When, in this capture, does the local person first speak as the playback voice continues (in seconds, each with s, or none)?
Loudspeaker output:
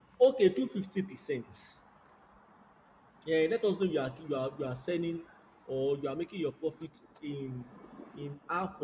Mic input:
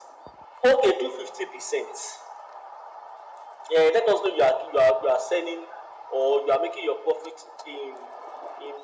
none